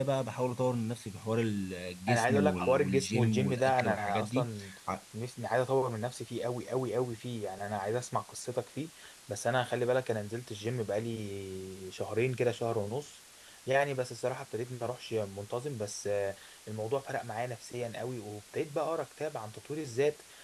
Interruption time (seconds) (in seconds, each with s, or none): 2.1 s